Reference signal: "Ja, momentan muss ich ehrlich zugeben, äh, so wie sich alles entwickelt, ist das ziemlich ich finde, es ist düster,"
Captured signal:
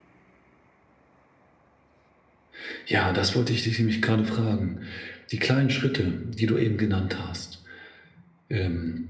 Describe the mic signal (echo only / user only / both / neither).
user only